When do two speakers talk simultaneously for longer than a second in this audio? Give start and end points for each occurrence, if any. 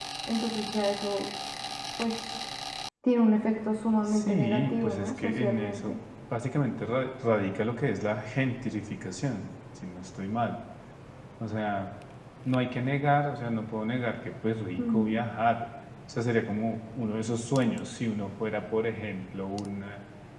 4.1-5.9

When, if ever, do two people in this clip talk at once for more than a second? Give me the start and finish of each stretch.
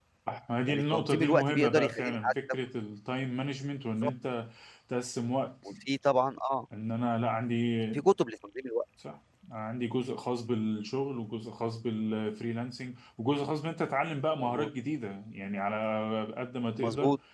0.7-2.3

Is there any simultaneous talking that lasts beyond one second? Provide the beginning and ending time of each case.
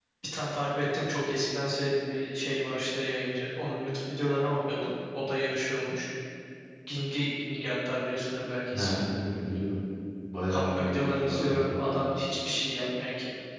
10.5-11.8

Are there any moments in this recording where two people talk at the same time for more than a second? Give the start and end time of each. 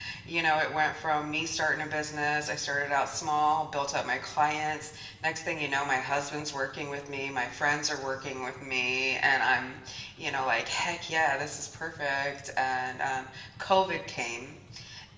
none

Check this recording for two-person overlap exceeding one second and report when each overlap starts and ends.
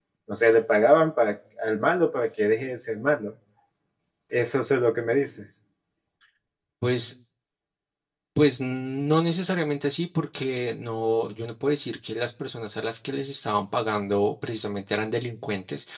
none

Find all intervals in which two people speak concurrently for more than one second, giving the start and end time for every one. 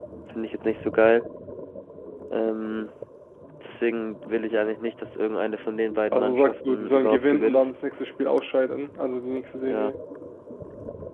6.1-7.7

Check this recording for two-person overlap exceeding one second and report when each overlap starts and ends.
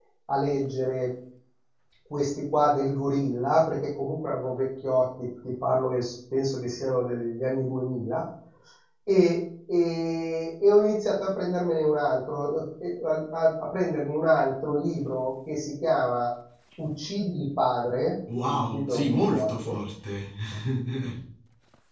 18.4-19.8

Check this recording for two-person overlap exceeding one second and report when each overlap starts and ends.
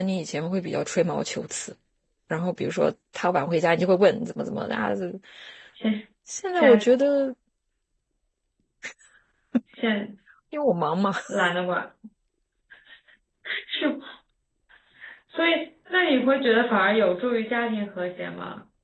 none

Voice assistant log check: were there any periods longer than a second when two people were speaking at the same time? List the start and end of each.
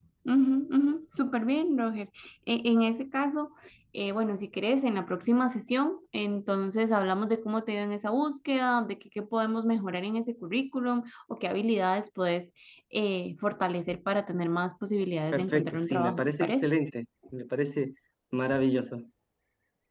15.3-16.7

